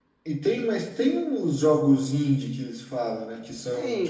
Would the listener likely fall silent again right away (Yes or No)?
No